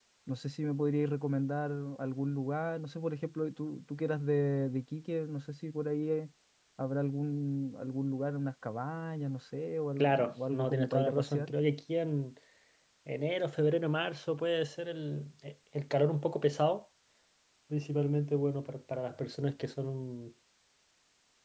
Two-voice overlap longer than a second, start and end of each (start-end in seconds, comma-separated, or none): 10.0-11.5